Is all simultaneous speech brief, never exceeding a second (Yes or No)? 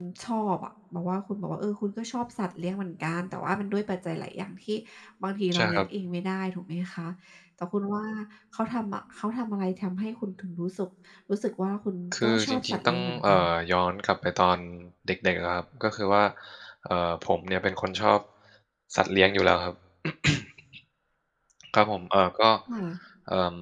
No